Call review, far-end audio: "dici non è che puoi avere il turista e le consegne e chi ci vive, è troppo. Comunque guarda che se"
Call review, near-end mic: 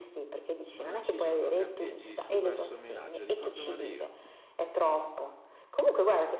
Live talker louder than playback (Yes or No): No